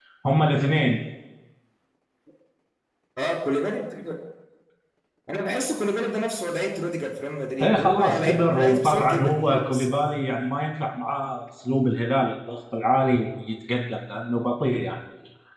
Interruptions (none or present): present